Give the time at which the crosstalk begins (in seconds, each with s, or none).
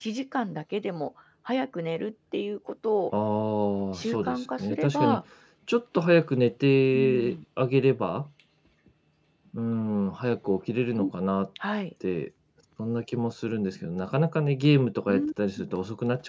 3.9 s